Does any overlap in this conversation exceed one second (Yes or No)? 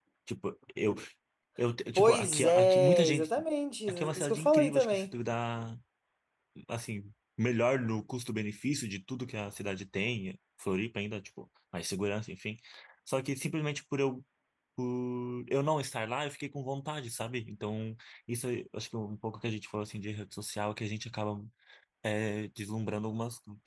Yes